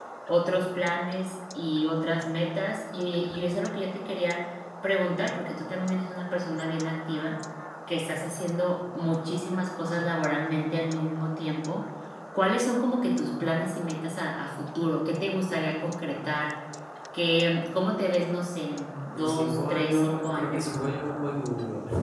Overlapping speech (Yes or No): Yes